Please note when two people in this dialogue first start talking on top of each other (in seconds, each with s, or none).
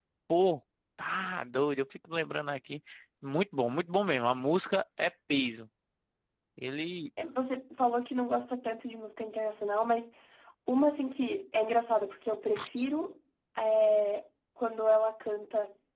none